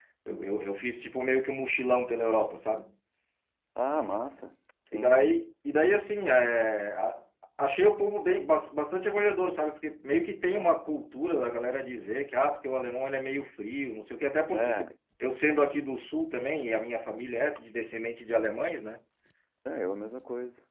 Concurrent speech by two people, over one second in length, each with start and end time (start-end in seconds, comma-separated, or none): none